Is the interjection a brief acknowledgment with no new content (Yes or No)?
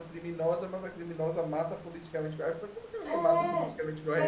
No